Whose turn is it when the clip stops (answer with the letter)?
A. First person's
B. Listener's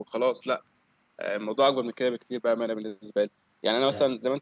A